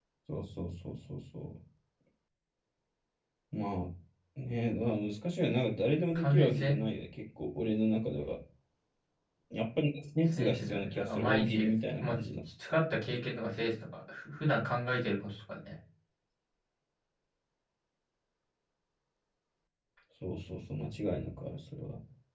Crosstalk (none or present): present